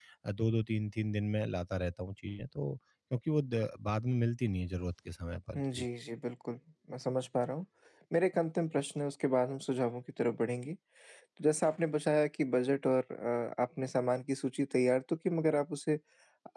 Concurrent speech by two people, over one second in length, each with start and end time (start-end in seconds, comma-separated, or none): none